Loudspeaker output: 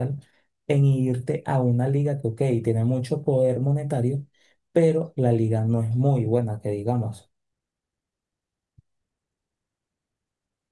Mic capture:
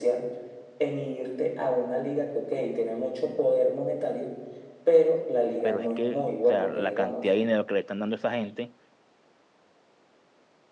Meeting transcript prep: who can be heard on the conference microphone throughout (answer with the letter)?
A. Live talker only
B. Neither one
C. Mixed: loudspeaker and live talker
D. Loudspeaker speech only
C